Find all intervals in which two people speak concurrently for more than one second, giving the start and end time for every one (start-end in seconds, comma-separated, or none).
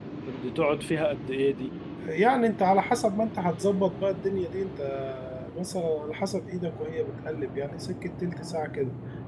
none